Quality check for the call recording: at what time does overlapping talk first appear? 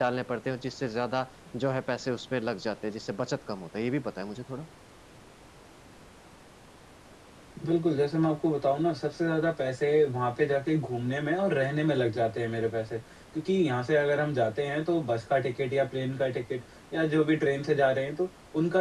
none

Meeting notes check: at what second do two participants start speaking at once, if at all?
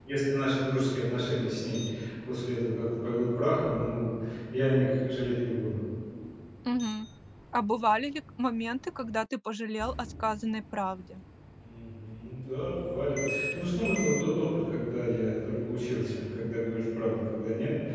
none

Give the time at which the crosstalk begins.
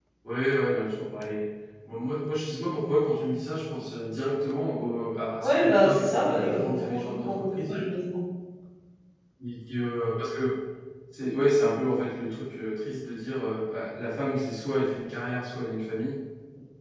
5 s

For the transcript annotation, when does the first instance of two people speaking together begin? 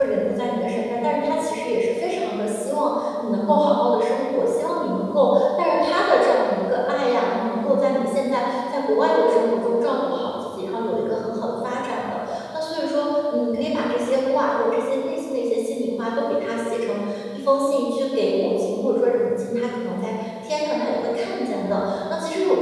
none

